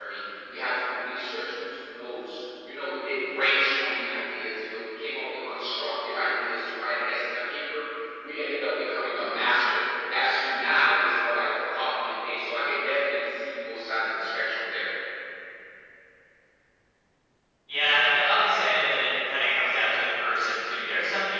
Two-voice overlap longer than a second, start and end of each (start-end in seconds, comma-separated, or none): none